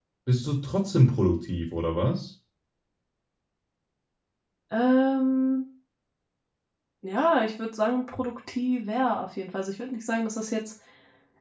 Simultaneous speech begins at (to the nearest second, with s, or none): none